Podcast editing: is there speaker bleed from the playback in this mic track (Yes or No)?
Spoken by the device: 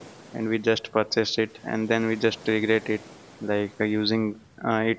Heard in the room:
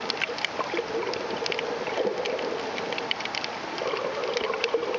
No